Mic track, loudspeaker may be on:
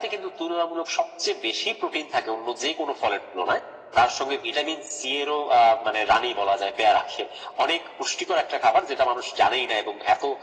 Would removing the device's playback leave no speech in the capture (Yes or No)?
Yes